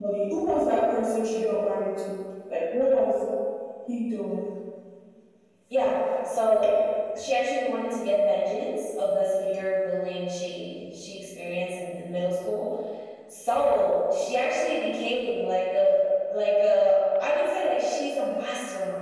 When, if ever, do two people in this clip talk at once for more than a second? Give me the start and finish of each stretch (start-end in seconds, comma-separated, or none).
none